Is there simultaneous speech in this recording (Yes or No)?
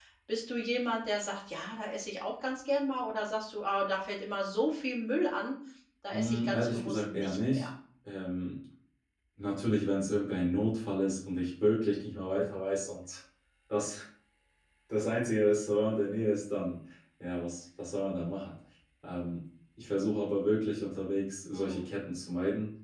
Yes